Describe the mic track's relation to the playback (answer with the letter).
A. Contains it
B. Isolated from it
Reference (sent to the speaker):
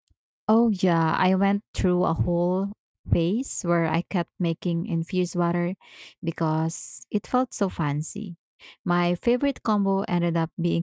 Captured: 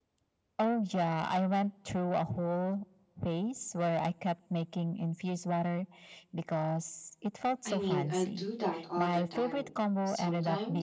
A